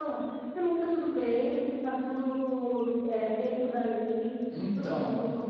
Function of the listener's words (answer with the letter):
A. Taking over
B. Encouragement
B